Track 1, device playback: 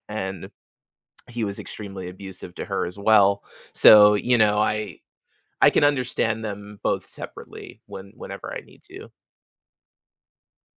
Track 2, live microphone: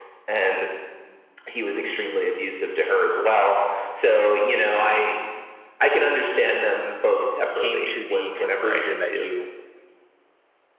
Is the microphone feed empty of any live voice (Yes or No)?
No